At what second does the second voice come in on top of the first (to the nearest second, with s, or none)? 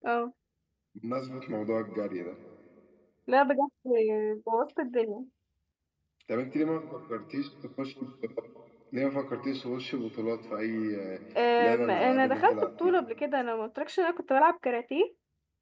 12 s